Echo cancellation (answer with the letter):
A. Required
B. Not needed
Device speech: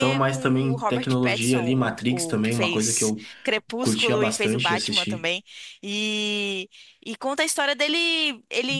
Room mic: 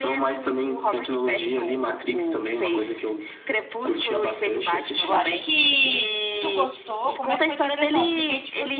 A